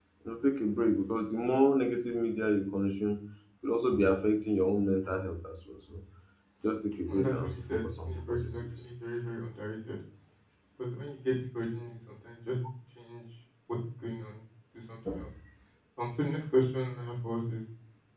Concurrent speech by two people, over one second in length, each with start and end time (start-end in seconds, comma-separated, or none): 7.0-8.6